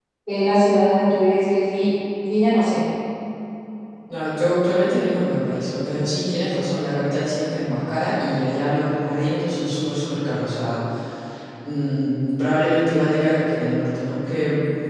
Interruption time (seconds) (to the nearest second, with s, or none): none